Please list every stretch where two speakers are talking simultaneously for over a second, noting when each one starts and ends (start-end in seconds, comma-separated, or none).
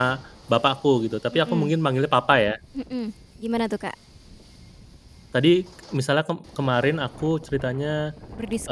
none